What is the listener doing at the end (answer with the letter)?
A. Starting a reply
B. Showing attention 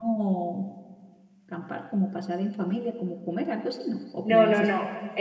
A